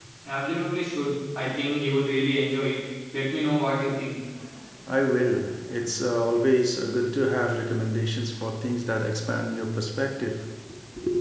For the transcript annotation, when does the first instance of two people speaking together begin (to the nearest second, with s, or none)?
none